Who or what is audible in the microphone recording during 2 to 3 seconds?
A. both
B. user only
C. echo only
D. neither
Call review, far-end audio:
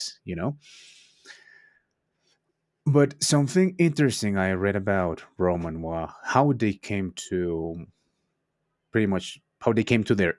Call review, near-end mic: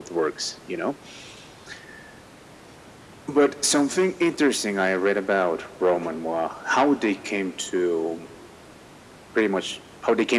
D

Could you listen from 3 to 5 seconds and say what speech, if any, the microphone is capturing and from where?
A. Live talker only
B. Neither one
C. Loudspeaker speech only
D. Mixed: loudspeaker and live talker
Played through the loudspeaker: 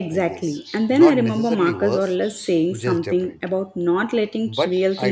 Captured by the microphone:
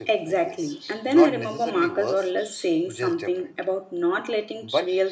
C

